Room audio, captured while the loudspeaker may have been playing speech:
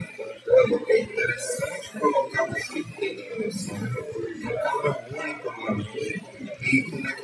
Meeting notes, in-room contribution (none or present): none